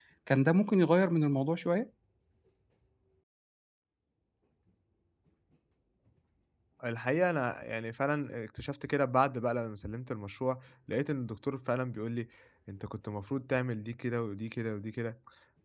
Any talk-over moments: No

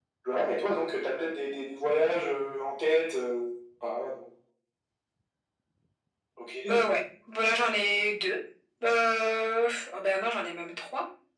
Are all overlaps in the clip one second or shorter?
Yes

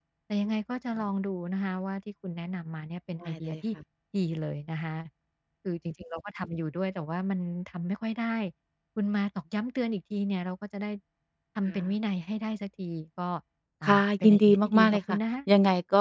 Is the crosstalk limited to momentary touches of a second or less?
No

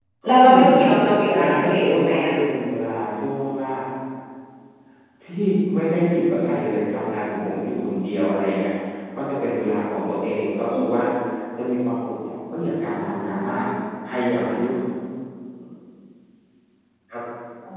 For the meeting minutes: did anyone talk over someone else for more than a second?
Yes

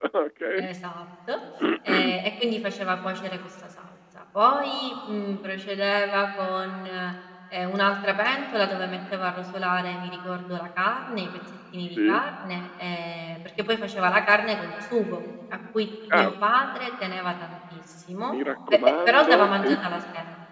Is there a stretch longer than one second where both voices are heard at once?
Yes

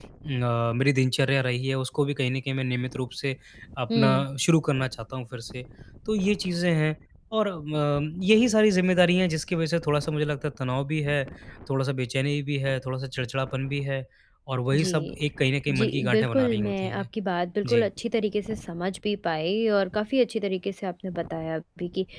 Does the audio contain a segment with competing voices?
Yes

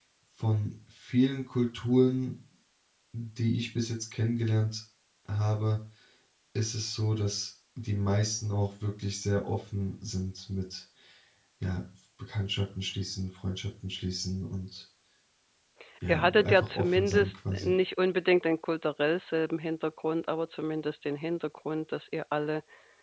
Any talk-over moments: Yes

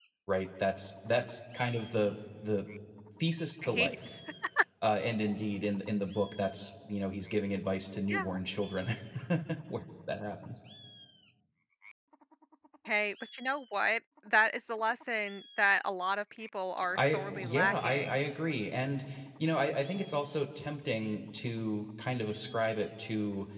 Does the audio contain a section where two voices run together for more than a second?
Yes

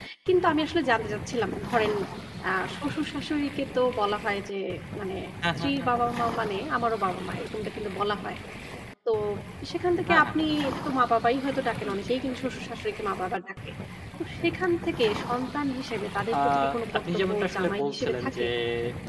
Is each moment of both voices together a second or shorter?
No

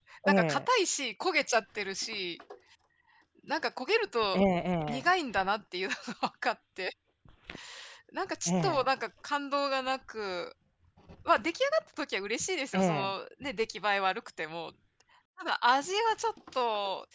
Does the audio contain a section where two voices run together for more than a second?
No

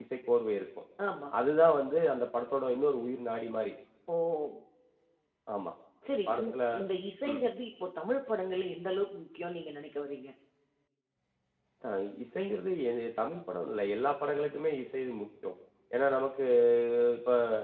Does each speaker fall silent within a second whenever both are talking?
Yes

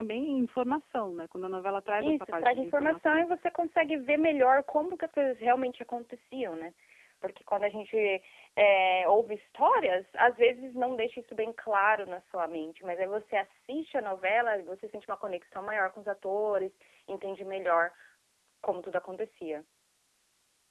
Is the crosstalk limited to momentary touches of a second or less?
No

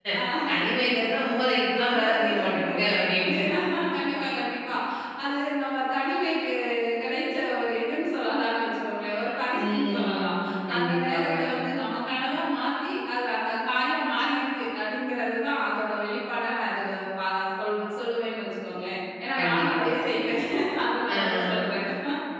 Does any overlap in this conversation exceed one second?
Yes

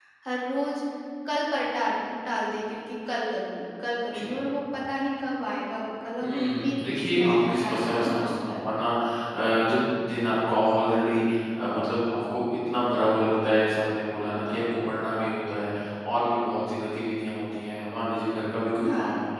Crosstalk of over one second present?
Yes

